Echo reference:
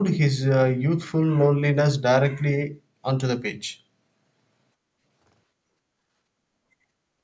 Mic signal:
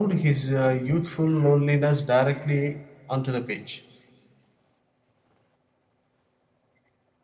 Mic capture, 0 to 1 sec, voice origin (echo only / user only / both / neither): echo only